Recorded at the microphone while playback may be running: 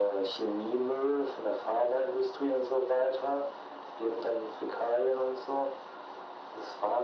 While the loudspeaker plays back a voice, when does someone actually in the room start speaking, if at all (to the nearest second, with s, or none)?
none